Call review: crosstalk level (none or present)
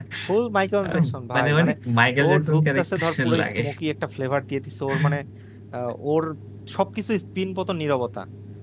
present